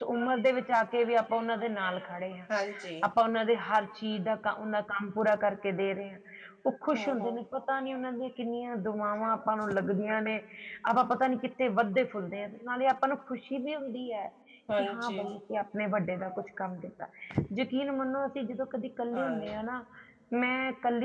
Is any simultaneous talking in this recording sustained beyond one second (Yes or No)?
No